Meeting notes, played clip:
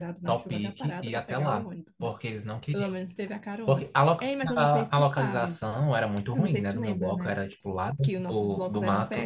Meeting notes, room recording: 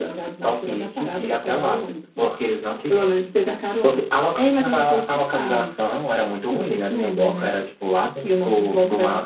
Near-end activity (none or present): none